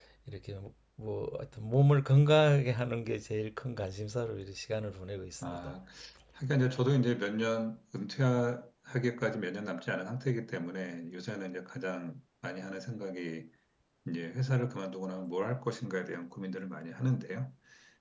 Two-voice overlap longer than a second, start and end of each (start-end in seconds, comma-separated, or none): none